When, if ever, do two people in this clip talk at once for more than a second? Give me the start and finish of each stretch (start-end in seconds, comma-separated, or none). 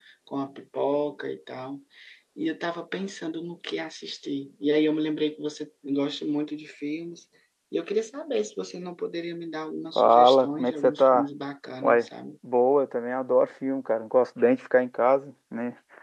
9.9-11.3